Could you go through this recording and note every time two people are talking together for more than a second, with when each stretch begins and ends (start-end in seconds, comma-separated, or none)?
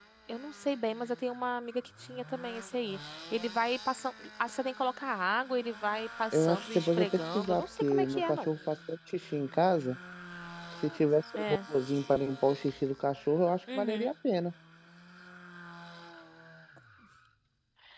6.3-8.5